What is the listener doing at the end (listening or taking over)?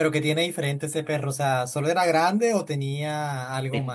taking over